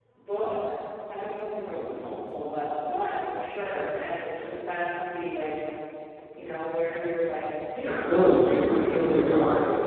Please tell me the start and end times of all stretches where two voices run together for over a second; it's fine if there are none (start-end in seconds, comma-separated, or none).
7.8-9.1